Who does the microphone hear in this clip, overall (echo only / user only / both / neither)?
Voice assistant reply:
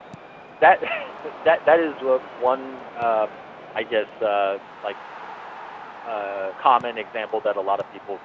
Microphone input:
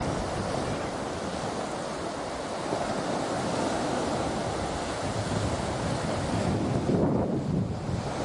neither